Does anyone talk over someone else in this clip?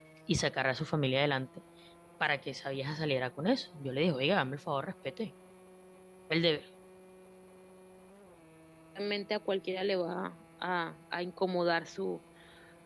No

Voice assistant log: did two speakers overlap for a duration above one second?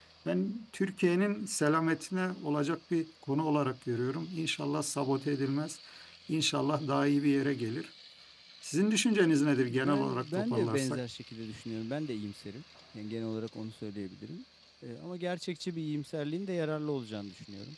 Yes, from 9.6 s

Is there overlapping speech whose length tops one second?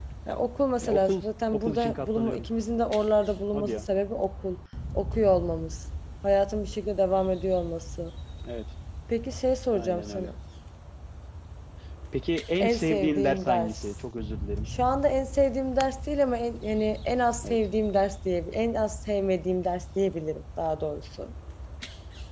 Yes, from 0.8 s

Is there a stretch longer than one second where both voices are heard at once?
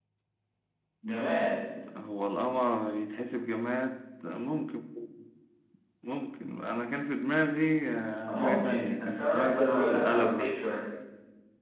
Yes, from 8.3 s

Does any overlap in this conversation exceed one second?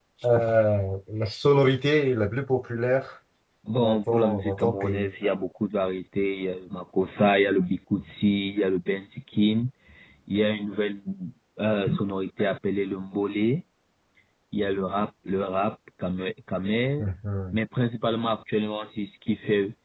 Yes, from 3.8 s

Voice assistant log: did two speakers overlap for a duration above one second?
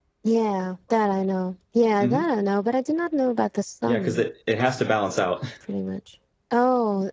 No

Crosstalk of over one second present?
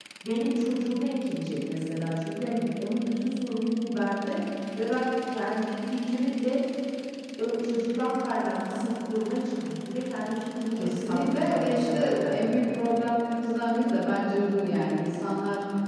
Yes, from 10.7 s

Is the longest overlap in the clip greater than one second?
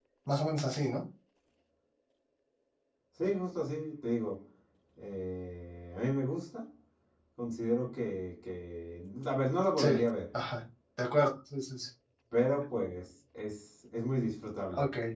No

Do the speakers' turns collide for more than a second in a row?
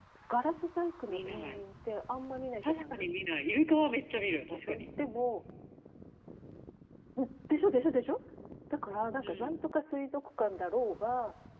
No

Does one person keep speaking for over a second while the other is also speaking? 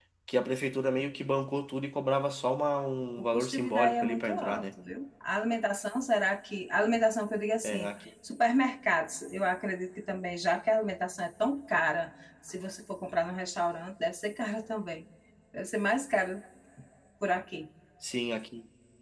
Yes, from 3.2 s

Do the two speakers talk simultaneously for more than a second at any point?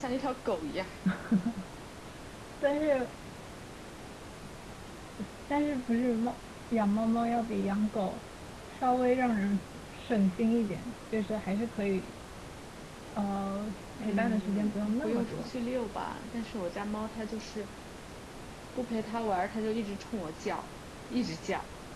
Yes, from 14.0 s

